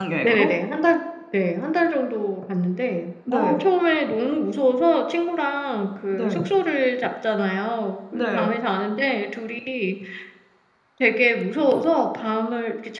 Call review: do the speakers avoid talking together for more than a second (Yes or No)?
Yes